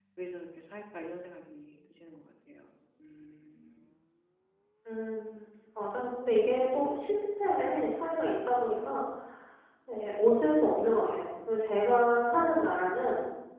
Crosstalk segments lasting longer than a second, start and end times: none

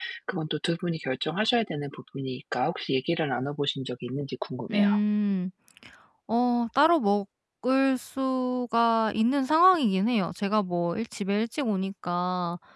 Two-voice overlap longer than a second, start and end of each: none

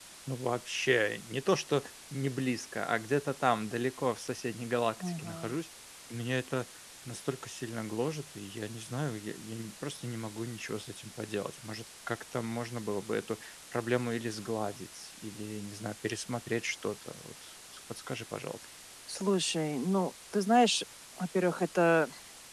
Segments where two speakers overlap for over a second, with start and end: none

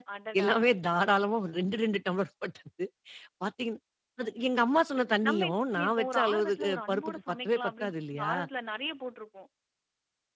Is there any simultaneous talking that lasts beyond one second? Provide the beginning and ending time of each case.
5.3-8.3

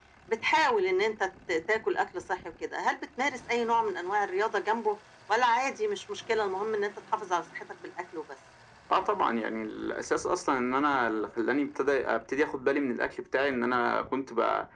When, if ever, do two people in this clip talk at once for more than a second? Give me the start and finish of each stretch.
none

